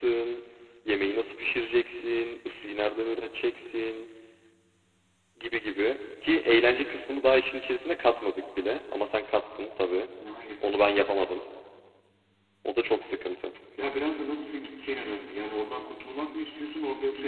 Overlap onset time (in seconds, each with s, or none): none